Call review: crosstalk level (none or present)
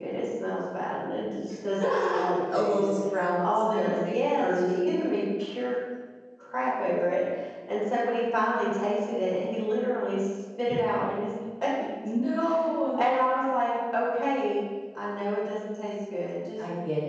present